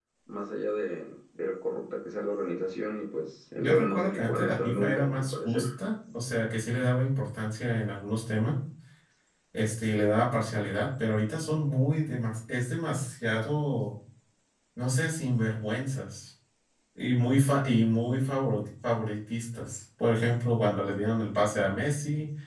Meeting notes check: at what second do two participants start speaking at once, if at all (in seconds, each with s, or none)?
3.6 s